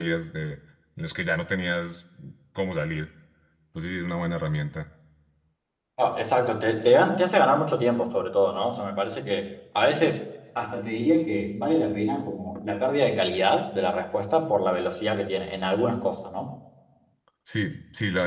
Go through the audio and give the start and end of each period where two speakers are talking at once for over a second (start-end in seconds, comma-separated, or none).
none